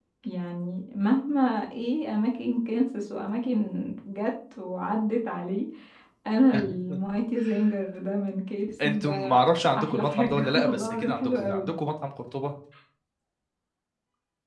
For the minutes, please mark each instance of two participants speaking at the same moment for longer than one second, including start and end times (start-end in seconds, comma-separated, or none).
9.8-11.7